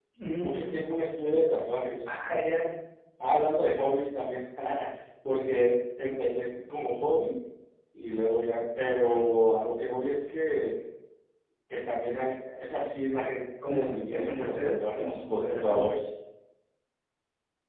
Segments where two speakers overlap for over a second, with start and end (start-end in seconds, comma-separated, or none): 13.7-16.0